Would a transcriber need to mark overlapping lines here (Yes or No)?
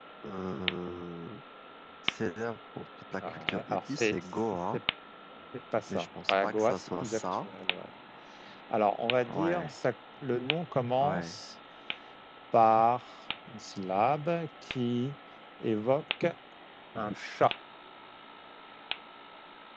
Yes